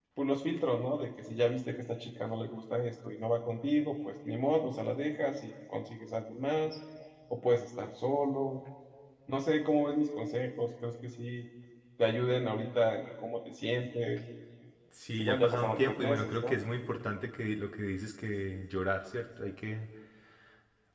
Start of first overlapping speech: 15.2 s

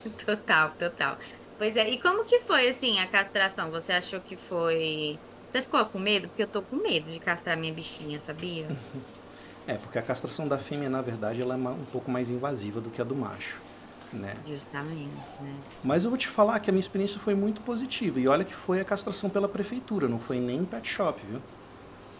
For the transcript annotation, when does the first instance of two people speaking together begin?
none

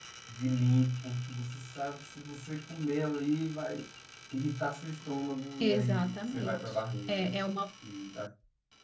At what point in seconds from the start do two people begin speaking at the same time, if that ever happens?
5.6 s

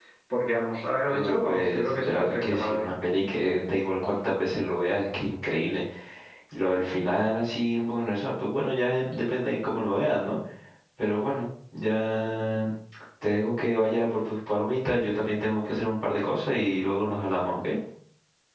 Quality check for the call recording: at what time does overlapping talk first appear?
1.1 s

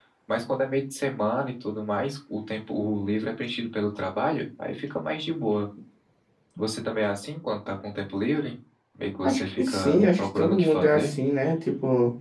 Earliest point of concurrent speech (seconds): 9.2 s

